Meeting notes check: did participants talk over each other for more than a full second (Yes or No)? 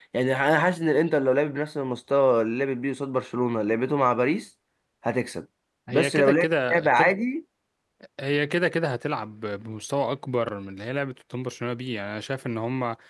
Yes